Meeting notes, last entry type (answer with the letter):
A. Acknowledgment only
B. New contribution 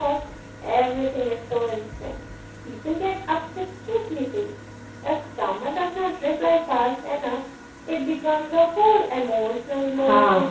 B